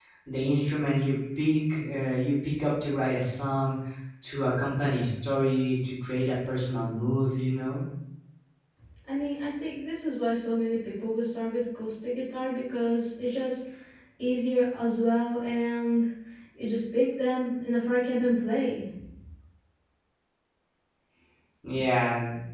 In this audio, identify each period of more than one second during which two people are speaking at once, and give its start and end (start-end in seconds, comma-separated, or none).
none